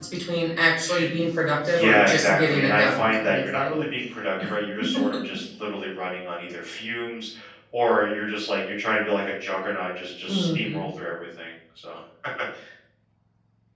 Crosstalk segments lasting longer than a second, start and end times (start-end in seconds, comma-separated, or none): 1.8-3.8